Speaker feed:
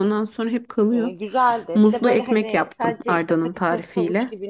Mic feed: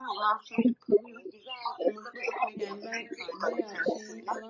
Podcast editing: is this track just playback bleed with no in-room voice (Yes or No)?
No